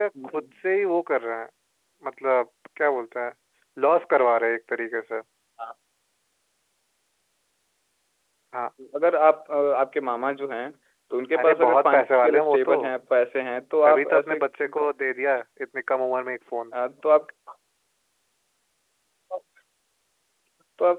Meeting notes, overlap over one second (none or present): present